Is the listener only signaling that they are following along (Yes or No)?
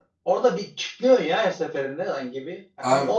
Yes